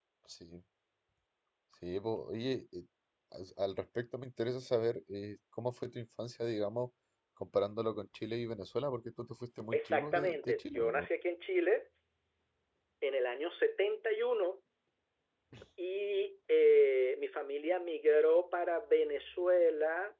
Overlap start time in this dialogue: 9.7 s

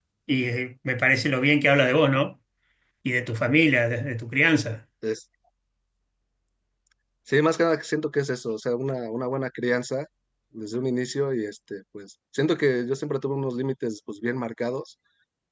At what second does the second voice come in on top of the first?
none

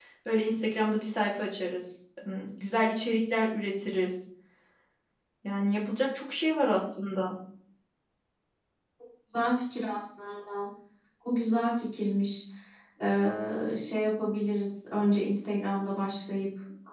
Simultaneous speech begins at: none

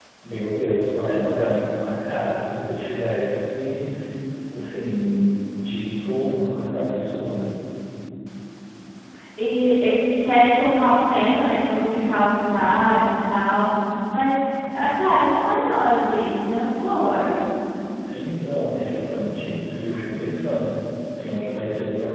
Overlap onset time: none

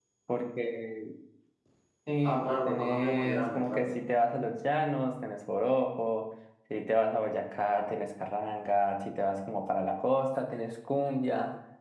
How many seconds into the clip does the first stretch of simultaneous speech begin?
2.2 s

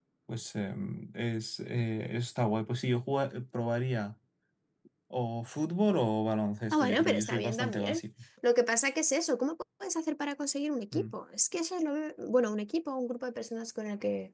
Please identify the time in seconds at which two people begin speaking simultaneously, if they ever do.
6.7 s

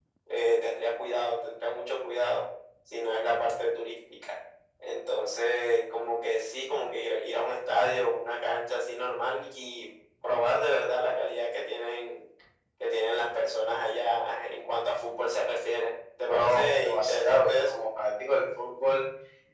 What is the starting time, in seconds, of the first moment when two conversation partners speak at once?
16.2 s

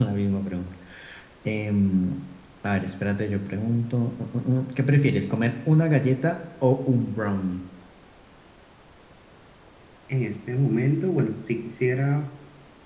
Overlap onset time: none

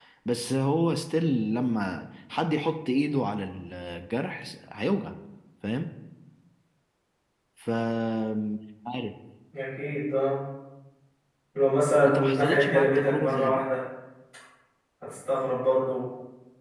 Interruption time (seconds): 12.1 s

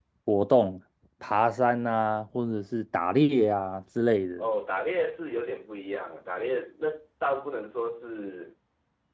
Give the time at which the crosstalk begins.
none

